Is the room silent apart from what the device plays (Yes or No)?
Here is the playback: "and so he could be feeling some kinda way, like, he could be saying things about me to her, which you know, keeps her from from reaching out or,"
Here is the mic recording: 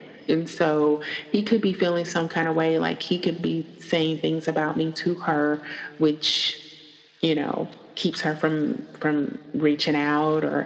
Yes